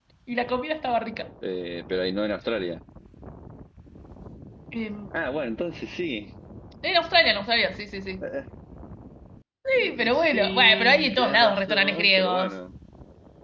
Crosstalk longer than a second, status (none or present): present